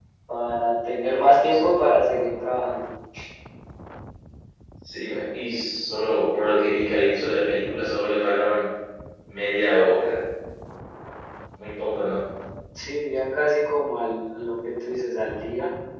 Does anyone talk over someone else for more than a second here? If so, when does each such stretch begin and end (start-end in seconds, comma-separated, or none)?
none